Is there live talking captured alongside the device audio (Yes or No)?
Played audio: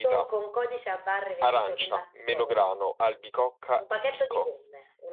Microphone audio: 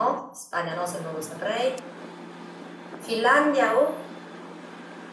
Yes